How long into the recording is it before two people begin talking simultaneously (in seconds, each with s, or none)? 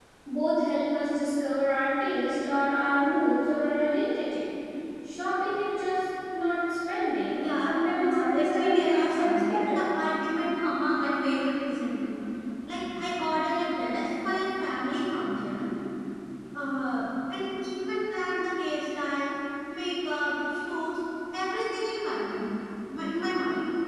7.4 s